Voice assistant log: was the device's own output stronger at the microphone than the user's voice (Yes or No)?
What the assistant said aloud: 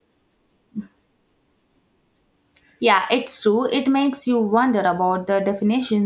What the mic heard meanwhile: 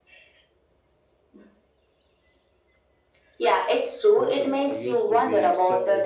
Yes